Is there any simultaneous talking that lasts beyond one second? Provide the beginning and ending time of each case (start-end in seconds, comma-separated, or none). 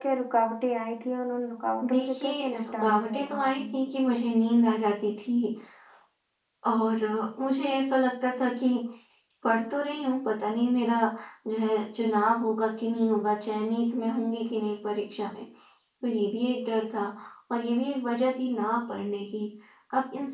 1.9-3.6